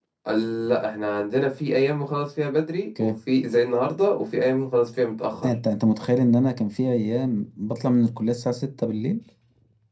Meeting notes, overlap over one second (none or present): none